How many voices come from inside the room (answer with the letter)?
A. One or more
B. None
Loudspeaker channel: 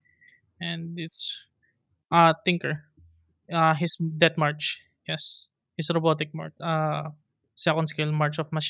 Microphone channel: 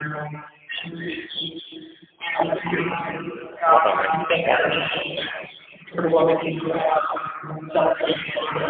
A